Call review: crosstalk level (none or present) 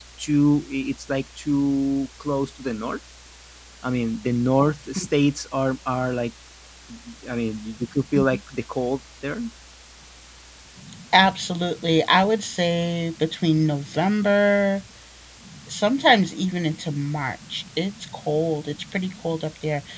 none